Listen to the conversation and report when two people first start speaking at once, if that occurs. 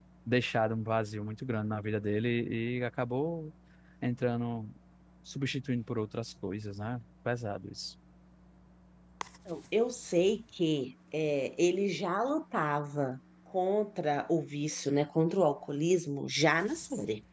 none

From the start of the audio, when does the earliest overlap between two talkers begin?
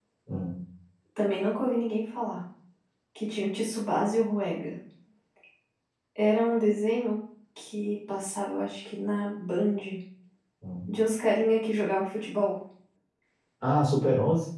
none

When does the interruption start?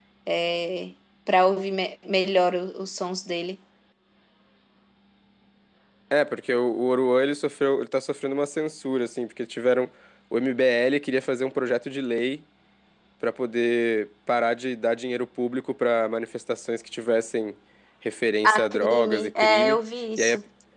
18.4 s

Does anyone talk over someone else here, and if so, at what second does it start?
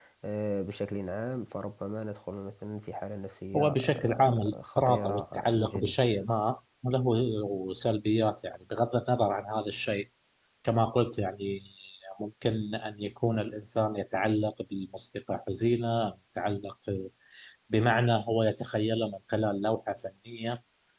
3.5 s

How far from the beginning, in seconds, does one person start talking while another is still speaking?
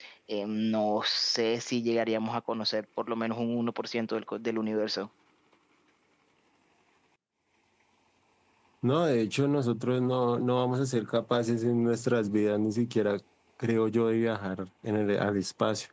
none

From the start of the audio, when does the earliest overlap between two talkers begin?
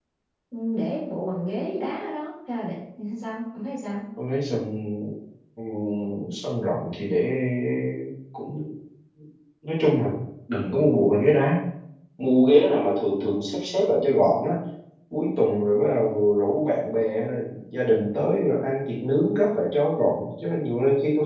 none

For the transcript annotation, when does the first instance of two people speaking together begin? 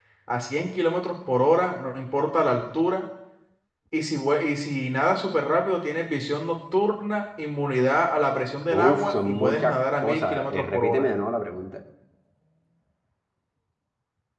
8.7 s

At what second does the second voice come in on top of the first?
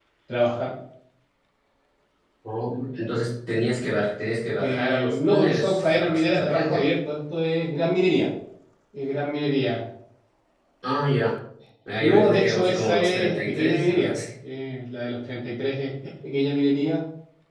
4.6 s

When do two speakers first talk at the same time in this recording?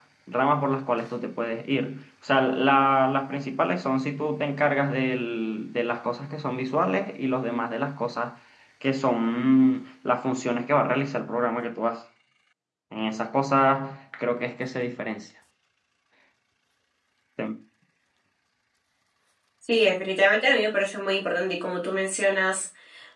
none

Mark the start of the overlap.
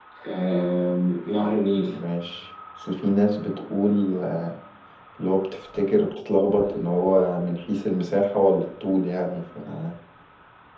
none

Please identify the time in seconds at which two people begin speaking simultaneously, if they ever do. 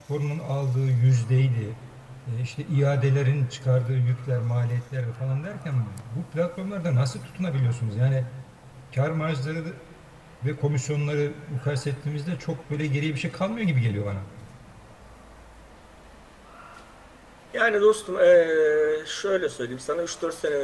none

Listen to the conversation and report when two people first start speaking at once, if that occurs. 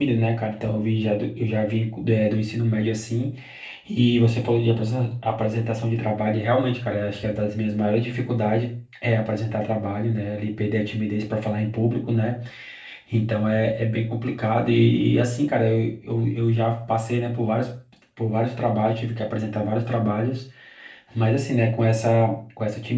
none

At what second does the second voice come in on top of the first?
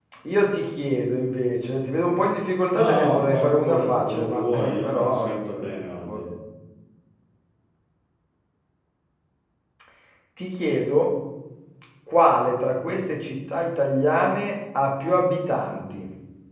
2.8 s

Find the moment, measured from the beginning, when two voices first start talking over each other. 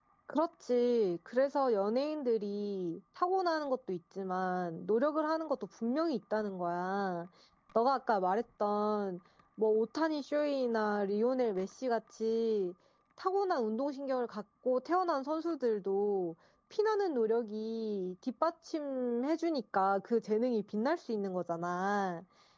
none

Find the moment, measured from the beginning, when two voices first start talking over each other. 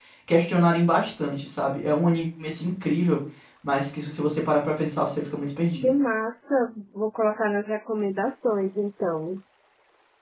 none

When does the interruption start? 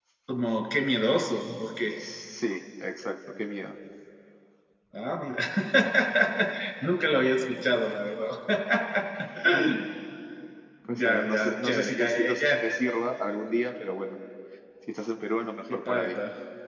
11.0 s

